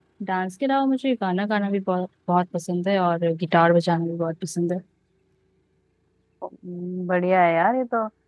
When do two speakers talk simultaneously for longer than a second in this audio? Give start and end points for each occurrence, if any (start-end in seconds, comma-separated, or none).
none